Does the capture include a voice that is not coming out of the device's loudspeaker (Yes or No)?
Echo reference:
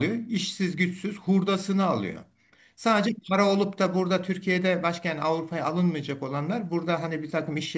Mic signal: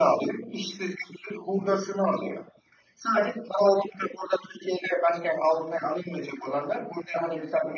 No